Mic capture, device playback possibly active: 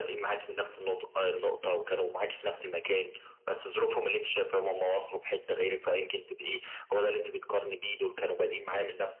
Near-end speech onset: none

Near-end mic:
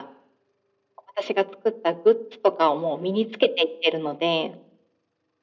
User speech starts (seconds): none

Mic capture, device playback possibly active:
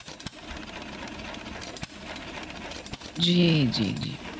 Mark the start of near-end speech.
3.2 s

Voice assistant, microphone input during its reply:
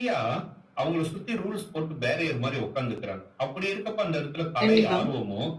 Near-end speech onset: 4.6 s

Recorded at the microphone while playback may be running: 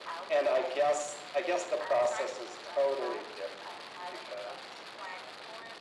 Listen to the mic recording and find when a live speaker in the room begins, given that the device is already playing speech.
none

